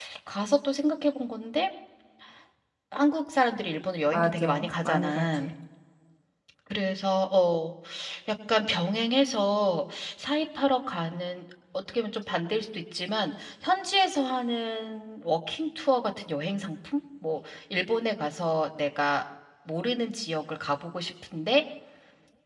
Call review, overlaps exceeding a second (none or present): present